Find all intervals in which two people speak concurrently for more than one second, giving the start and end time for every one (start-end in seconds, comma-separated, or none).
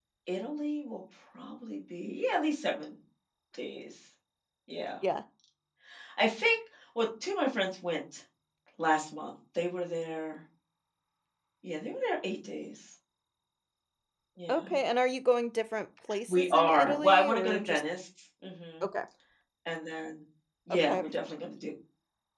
16.3-17.8